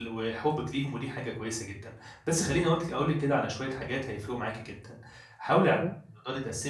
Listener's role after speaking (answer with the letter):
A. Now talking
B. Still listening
B